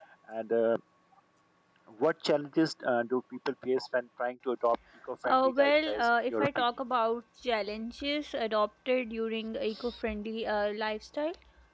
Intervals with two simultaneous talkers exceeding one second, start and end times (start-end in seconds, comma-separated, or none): 5.3-6.6